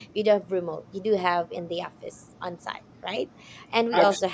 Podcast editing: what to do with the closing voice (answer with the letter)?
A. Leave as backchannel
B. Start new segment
A